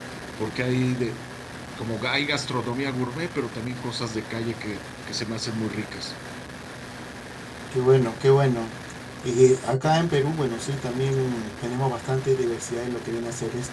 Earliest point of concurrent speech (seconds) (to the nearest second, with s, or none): none